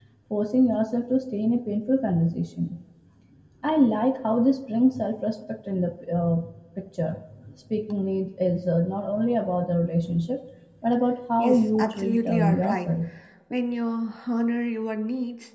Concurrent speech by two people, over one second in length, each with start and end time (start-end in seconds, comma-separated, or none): 11.4-12.9